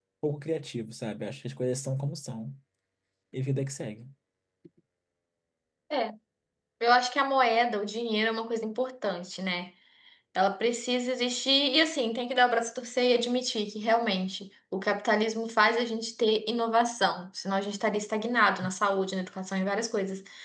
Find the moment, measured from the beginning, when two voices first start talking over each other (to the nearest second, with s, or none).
none